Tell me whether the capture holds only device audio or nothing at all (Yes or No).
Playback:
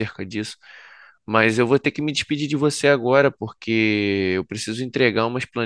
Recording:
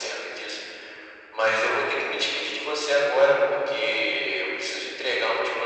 Yes